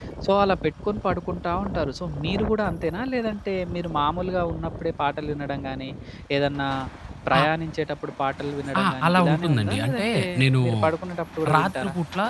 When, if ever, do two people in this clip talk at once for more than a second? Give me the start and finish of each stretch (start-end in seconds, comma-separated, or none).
8.8-10.2